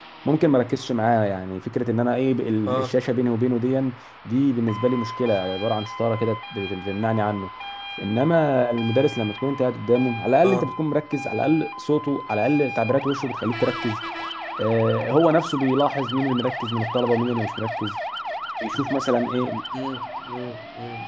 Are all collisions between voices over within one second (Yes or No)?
Yes